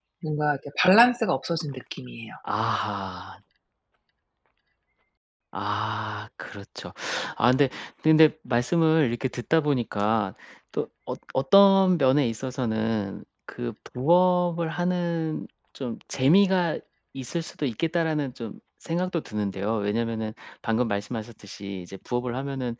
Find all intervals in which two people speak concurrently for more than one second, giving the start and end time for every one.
none

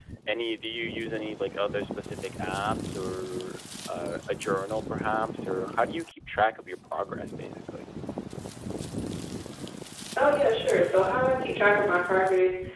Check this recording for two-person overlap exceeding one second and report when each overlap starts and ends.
none

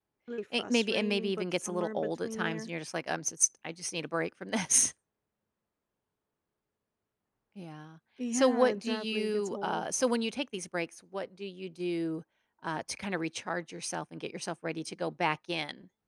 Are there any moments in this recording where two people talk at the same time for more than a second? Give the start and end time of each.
0.6-2.7, 8.3-9.8

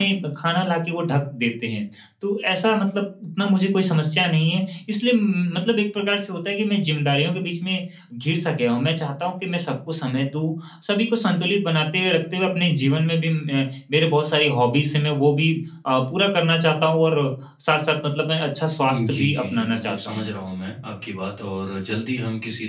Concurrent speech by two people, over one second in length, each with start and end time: 18.8-20.3

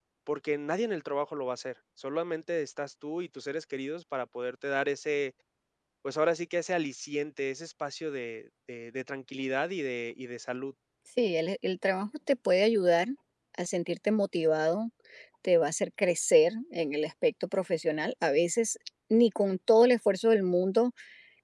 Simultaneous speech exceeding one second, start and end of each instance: none

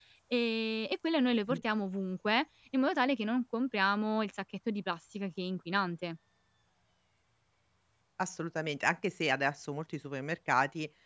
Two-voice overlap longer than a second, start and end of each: none

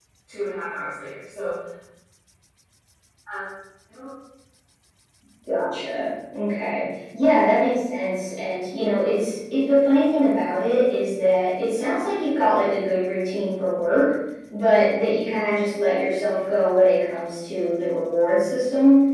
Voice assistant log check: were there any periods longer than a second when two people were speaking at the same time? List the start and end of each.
none

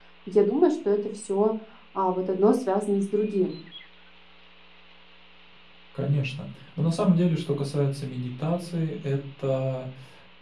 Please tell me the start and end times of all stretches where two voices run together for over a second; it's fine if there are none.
none

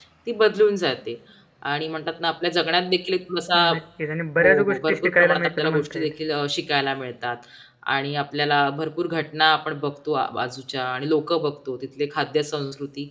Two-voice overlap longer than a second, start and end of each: 4.4-6.1

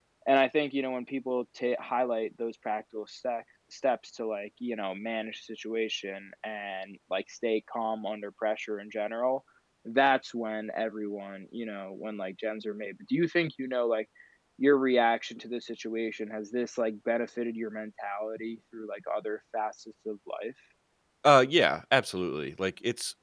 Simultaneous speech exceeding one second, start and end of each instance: none

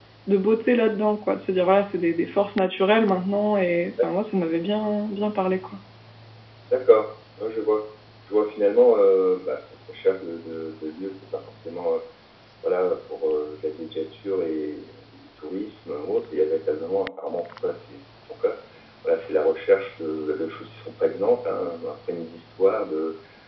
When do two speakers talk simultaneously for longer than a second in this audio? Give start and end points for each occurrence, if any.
none

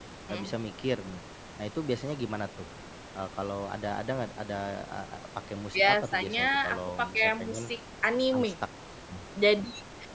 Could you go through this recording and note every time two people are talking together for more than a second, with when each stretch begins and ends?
5.7-7.6

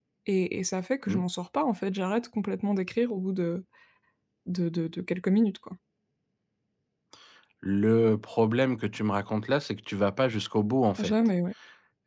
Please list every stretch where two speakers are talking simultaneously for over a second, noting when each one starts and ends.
none

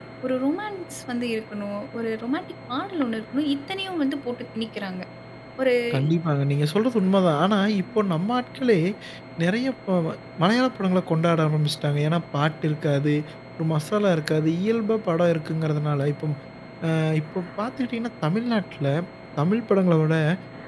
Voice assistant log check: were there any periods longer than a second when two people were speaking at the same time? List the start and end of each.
none

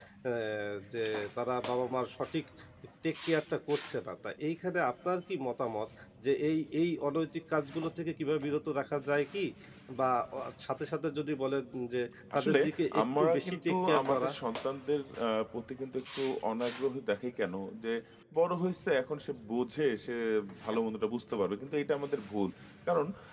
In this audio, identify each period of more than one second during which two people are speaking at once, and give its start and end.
13.0-14.3

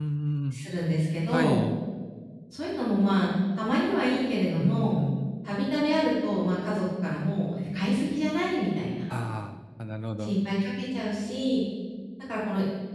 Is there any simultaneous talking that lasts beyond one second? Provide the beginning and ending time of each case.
none

